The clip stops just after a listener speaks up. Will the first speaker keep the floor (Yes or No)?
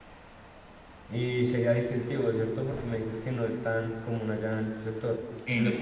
Yes